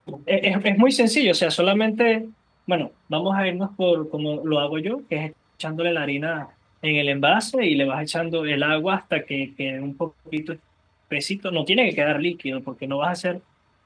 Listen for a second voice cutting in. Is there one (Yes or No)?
No